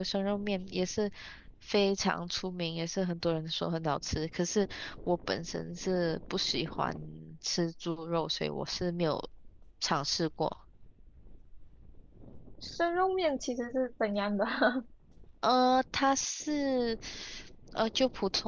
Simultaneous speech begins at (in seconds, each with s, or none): none